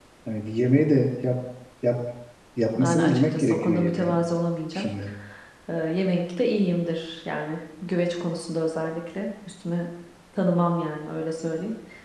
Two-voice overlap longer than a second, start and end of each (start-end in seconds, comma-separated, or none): 2.8-4.1